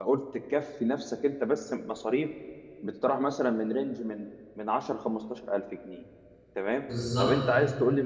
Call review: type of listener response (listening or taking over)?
listening